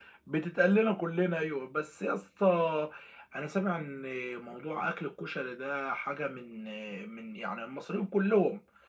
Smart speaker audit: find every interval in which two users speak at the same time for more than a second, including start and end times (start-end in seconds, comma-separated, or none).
none